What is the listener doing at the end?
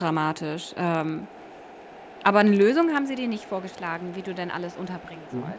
taking over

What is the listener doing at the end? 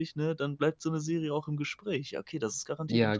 taking over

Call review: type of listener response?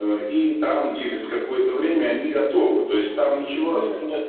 listening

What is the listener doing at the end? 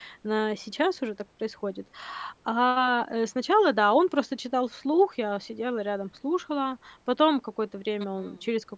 listening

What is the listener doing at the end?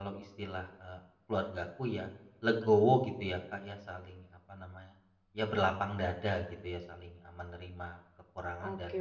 taking over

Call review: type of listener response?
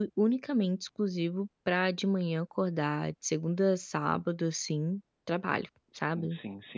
taking over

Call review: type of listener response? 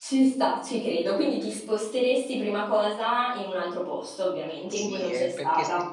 taking over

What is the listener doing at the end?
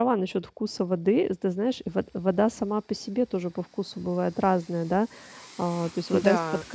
listening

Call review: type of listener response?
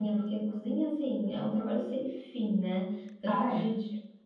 listening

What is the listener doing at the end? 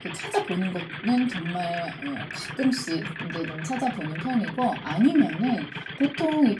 listening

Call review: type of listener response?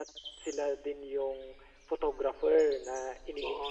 taking over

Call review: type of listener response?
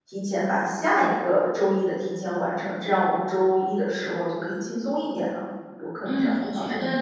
taking over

